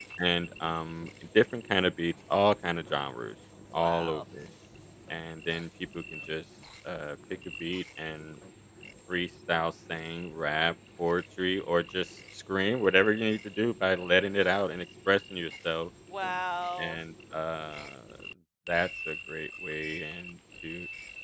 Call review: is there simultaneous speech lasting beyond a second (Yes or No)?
No